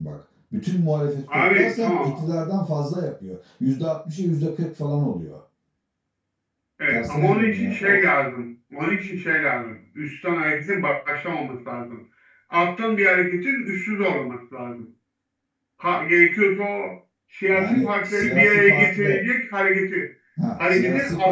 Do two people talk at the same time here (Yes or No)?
Yes